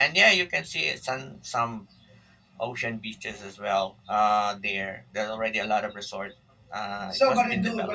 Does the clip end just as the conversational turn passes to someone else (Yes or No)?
Yes